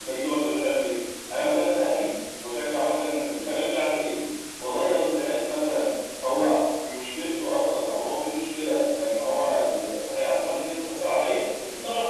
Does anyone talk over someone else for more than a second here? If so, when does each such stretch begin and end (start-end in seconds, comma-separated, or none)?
none